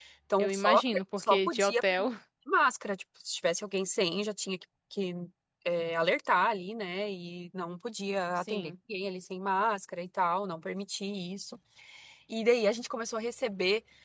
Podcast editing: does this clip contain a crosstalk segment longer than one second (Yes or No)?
Yes